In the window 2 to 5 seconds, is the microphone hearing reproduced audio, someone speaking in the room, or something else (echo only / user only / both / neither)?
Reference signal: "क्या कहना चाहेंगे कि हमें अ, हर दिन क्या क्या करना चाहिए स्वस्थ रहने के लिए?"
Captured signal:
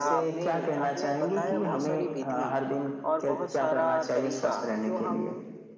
both